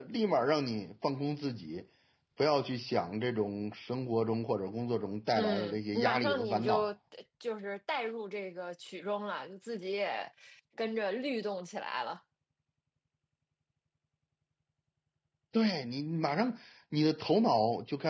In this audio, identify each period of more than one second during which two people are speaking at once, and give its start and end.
5.3-6.9

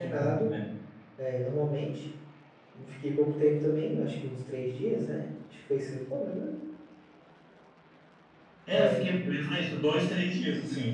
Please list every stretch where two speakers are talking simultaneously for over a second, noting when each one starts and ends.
none

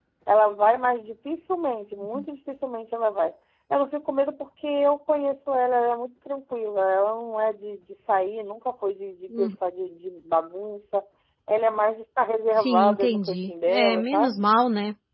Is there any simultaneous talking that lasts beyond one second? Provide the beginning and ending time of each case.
12.6-14.4

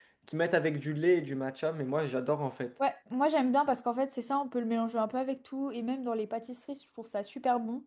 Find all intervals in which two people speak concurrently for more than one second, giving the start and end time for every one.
none

